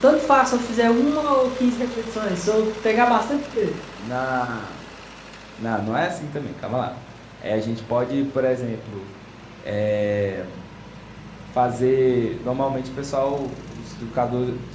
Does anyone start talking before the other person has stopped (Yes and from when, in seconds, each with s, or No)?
No